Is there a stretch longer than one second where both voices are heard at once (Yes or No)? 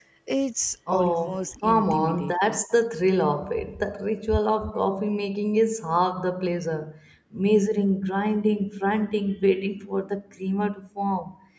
Yes